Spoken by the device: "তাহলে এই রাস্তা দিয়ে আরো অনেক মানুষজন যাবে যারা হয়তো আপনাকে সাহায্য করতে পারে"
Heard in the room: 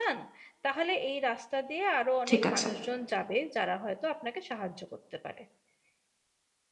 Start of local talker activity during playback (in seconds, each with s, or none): 2.3 s